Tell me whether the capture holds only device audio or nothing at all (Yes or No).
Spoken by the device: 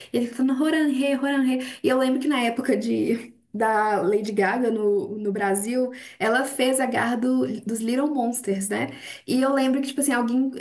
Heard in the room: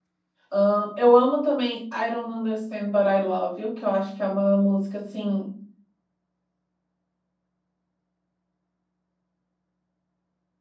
No